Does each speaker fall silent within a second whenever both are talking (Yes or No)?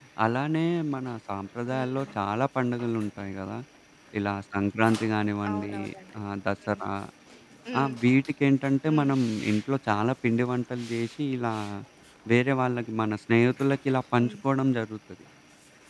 Yes